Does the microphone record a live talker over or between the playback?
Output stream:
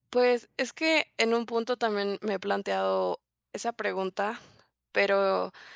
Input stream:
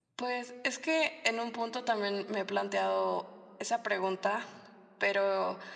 No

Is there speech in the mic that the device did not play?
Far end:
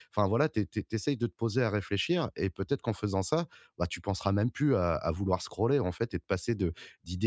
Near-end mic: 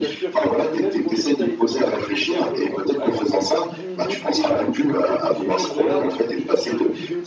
Yes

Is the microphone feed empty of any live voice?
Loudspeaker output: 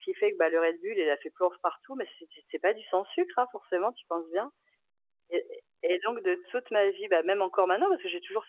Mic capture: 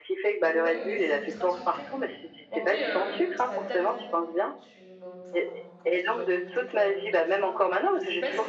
No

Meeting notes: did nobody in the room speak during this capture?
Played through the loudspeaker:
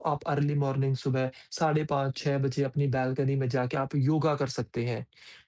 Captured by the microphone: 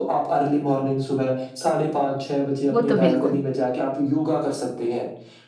No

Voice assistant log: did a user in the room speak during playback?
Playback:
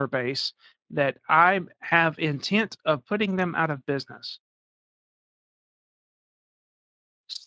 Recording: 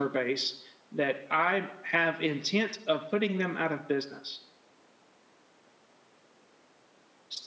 No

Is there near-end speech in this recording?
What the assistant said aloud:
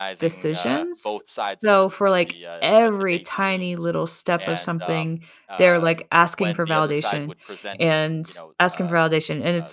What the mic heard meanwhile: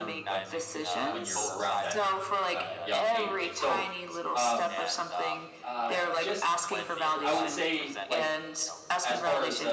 Yes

